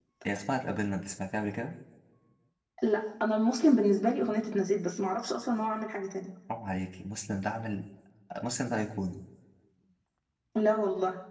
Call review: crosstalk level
none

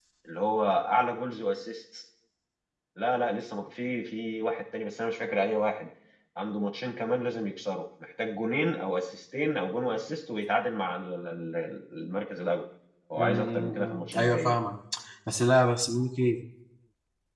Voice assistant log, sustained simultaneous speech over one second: present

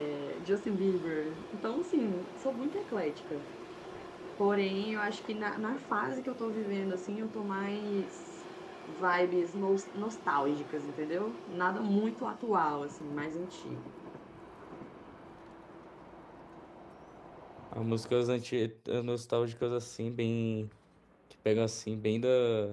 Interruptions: none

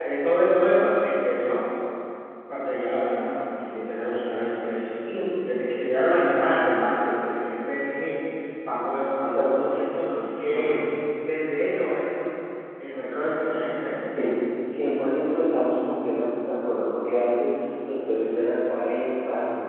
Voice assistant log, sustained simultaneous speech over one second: none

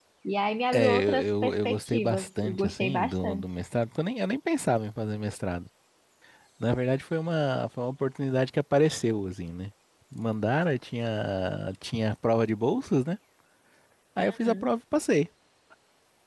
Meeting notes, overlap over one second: present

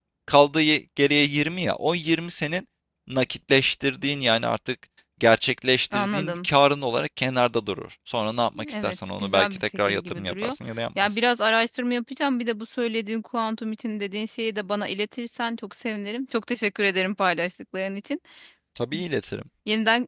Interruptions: present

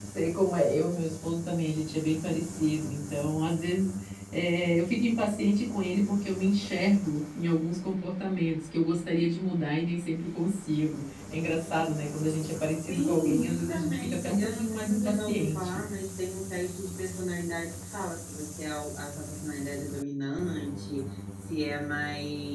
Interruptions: present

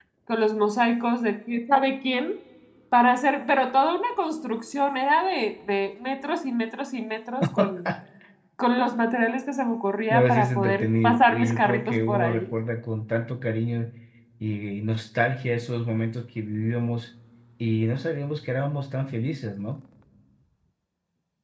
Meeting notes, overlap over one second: present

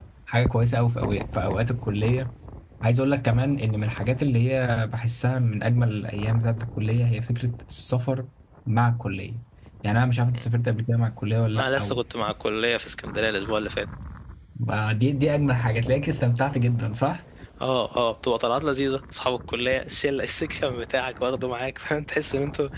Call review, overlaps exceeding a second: none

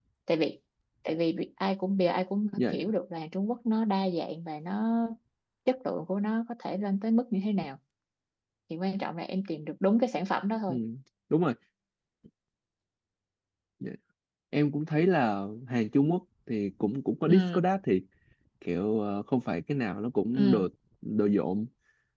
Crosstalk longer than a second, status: none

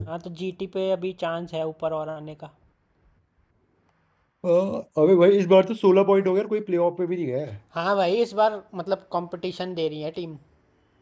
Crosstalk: none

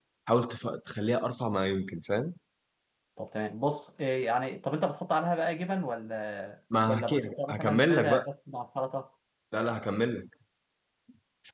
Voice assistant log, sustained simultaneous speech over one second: present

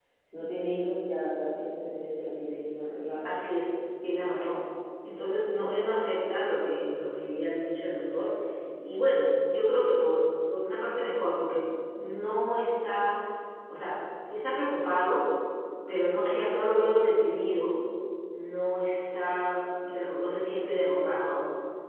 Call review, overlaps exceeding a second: none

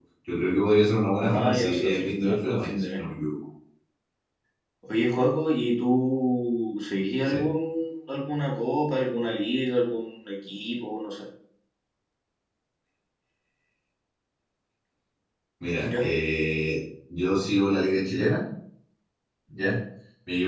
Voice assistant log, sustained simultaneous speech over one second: present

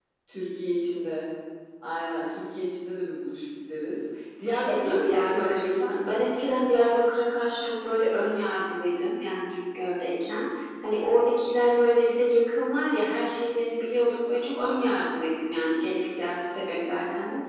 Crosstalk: present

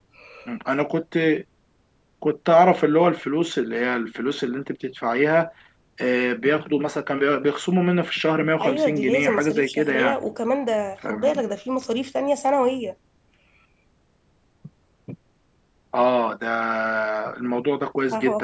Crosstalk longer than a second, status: present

